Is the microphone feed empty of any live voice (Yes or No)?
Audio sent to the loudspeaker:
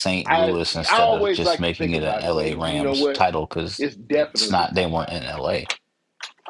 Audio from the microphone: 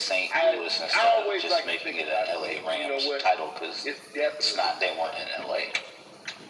Yes